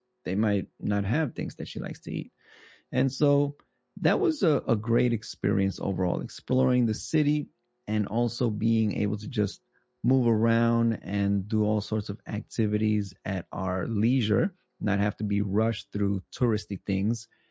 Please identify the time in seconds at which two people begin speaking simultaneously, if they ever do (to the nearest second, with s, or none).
none